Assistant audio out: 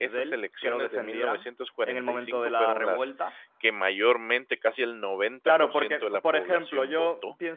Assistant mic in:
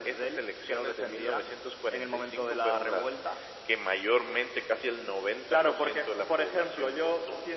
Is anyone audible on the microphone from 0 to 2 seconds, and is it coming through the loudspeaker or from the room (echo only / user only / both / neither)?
echo only